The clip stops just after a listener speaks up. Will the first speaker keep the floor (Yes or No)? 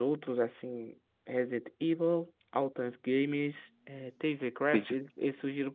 Yes